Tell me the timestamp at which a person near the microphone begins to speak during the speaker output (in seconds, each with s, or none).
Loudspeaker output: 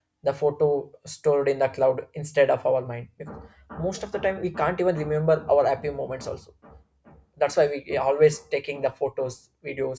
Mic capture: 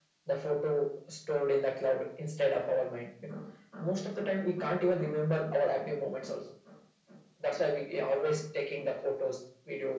none